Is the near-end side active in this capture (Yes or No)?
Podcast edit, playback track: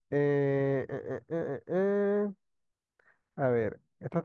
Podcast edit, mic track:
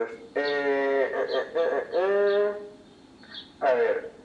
No